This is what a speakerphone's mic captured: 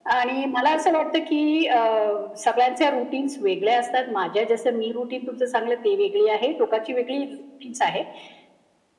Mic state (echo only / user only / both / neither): echo only